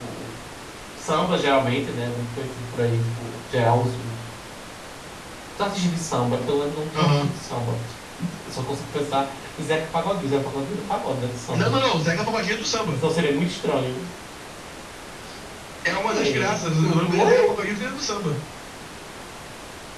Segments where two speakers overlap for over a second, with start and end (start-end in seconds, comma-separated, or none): 16.1-17.4